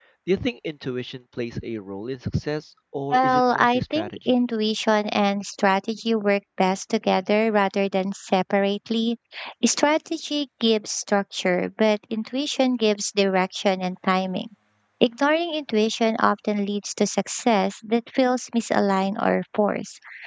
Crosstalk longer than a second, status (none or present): present